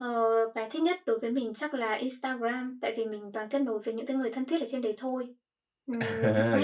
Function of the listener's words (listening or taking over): taking over